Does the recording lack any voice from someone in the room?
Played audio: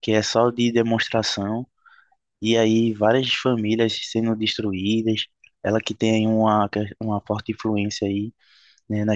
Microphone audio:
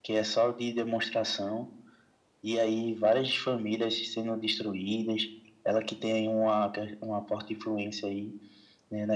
Yes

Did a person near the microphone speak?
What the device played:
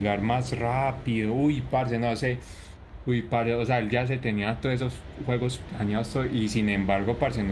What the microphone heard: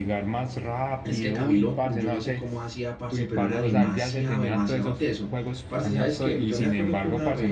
Yes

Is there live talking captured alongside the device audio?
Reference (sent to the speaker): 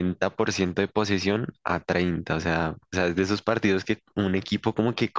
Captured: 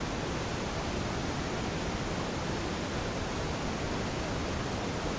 No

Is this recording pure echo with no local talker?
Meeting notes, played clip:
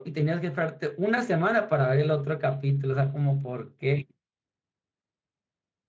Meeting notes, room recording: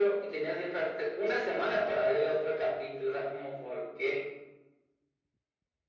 Yes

